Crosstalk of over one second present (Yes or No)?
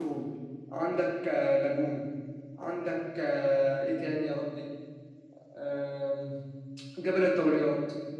No